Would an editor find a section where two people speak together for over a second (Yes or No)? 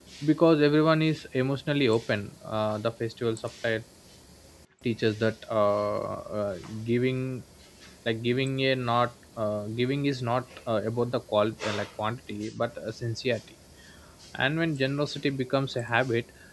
No